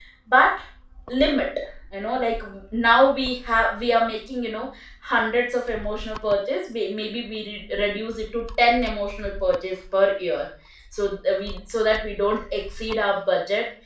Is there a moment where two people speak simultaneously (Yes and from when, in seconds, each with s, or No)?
No